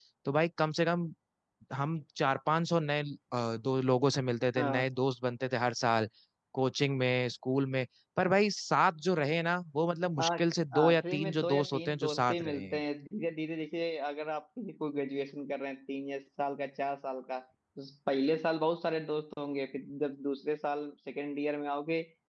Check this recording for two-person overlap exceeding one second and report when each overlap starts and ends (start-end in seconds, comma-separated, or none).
10.8-12.8